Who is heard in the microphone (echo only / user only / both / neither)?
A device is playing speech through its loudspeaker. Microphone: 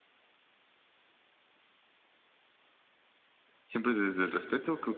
user only